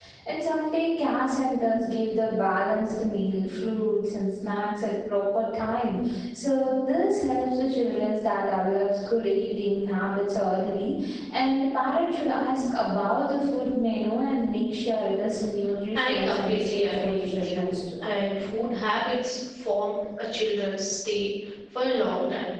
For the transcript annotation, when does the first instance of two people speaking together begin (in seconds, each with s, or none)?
15.9 s